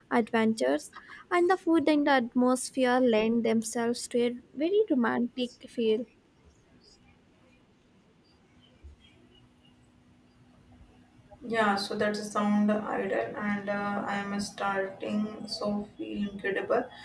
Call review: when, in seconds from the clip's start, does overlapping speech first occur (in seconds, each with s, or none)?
none